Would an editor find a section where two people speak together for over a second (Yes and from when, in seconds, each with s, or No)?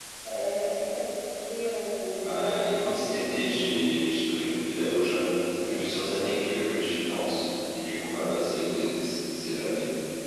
Yes, from 2.2 s